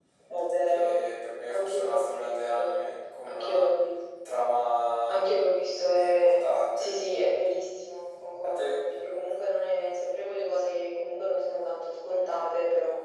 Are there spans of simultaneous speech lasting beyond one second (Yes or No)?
Yes